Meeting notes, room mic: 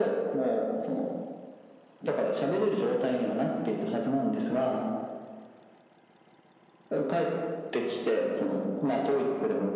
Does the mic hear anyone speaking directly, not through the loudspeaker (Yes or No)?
No